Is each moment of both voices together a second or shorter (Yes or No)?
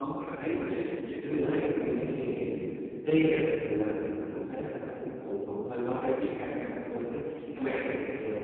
Yes